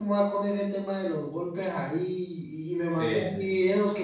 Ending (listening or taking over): listening